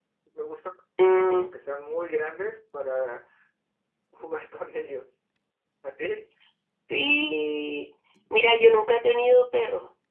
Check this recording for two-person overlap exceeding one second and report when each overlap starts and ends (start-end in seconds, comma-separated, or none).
none